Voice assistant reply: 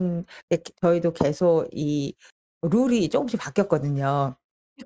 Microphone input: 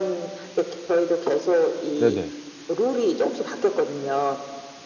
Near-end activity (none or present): present